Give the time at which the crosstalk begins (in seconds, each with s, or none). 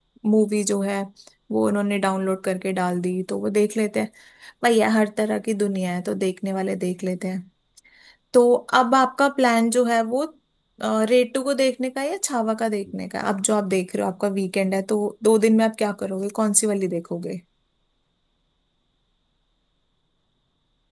none